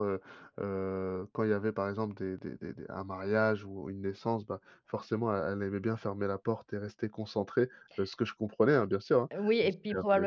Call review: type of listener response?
taking over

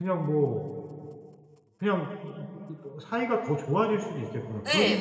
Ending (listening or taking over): taking over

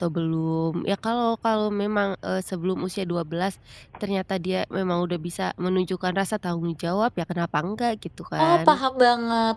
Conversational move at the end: taking over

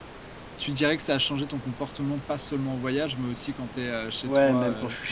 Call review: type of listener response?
taking over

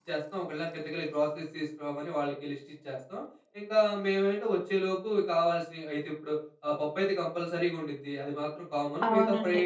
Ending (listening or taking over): listening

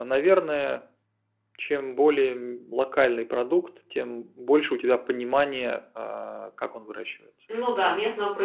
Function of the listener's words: taking over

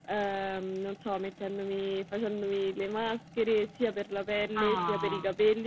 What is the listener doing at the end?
listening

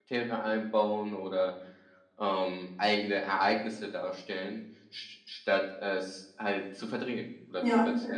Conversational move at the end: taking over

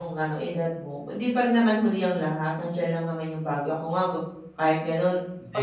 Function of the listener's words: taking over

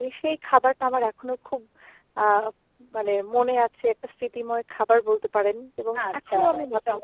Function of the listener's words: taking over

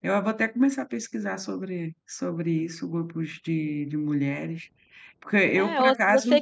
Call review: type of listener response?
taking over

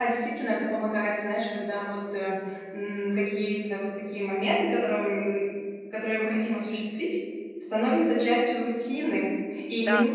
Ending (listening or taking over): listening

